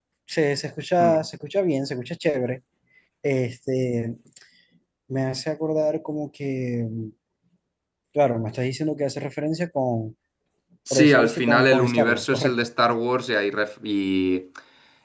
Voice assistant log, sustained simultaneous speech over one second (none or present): present